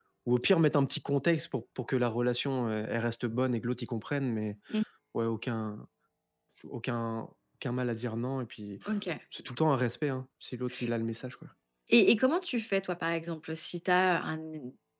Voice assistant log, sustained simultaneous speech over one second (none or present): none